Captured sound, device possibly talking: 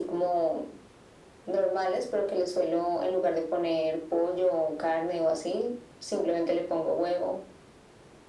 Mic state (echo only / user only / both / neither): echo only